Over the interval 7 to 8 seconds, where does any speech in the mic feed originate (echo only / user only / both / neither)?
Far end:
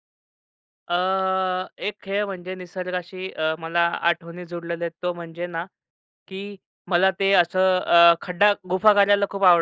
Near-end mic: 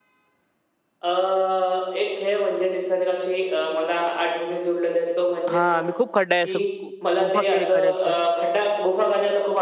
both